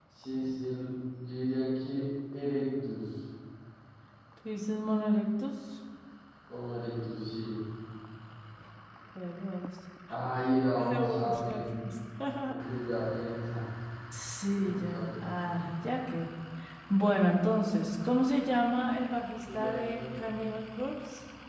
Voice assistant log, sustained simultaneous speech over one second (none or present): present